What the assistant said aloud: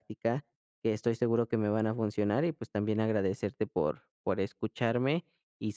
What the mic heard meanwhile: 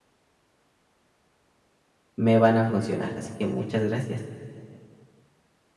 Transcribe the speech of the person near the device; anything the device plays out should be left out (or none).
me van a funcionar, así que muchas gracias.